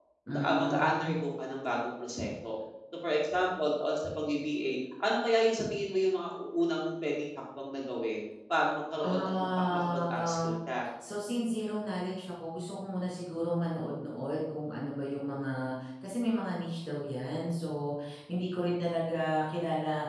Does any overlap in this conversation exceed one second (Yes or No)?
Yes